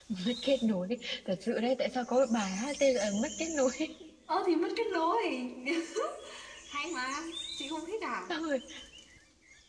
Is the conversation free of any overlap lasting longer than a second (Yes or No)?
Yes